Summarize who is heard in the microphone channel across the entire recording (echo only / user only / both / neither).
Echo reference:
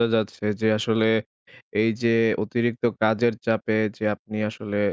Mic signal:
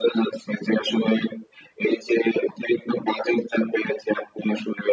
echo only